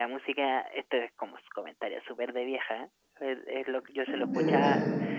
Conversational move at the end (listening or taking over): listening